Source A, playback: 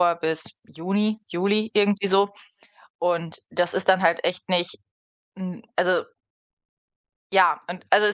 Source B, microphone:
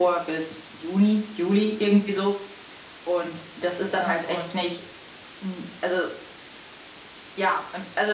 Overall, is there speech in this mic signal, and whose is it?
both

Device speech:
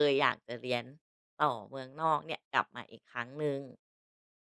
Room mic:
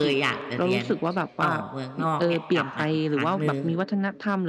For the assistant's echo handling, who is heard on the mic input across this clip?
both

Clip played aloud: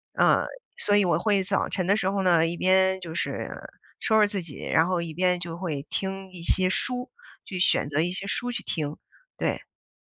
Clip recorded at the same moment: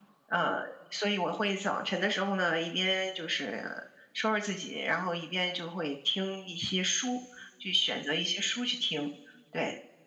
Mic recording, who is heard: echo only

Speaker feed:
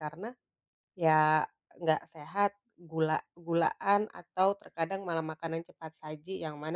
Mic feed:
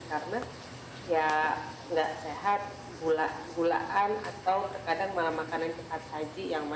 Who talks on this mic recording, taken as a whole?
echo only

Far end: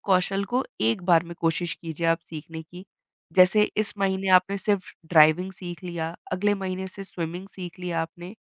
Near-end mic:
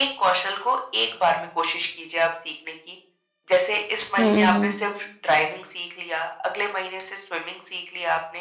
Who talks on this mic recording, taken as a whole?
both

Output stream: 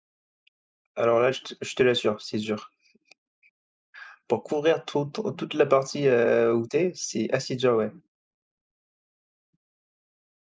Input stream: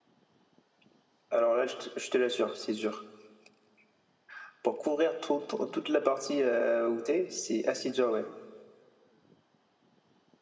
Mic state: echo only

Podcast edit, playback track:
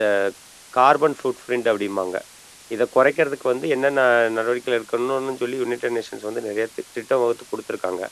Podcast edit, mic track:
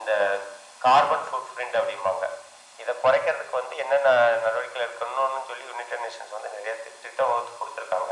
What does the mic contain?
echo only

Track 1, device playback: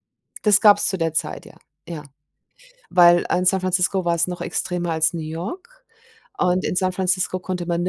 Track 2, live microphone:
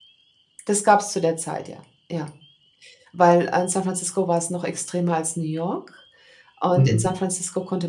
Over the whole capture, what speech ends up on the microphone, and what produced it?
both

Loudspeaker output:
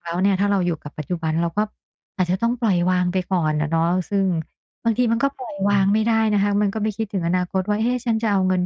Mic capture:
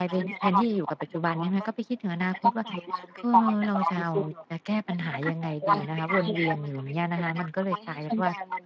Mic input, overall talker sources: both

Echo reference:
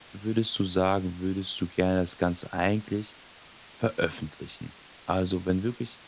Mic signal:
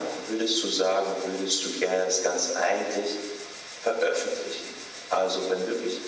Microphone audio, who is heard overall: echo only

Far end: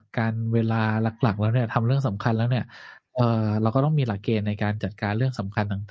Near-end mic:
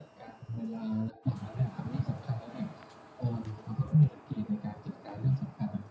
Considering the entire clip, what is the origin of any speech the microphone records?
echo only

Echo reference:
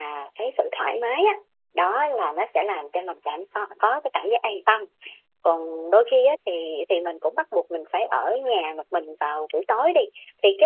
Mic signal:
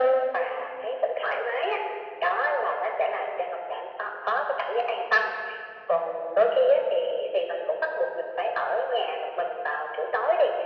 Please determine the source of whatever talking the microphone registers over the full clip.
echo only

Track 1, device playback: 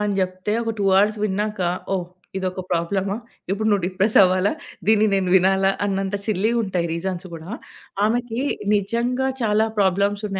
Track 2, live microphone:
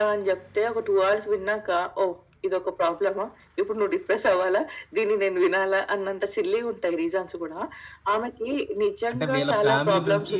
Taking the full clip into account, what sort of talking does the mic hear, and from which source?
both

